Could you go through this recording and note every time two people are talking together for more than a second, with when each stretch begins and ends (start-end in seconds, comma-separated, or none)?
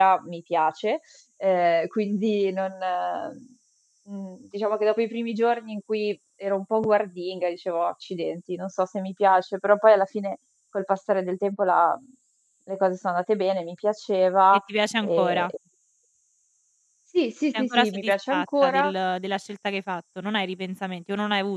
17.5-18.9